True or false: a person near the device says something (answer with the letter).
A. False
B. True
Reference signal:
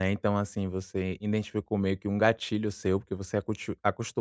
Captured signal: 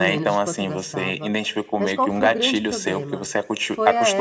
B